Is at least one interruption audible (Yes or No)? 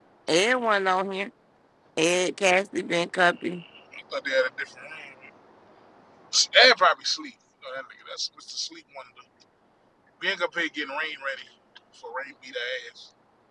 No